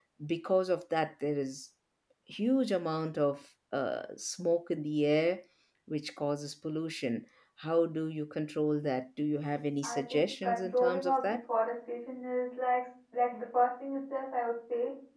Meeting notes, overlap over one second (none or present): present